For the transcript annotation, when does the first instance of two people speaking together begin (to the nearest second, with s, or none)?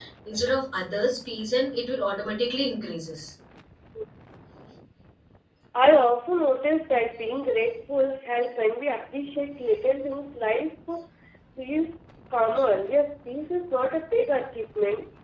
none